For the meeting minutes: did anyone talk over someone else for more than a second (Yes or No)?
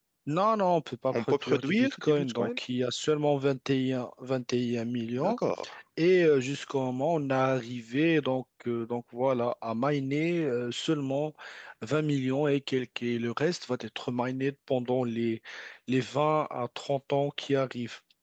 Yes